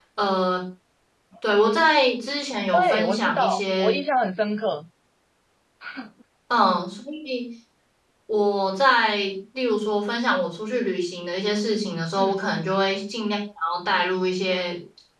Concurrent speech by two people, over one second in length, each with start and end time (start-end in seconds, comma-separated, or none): 2.7-3.9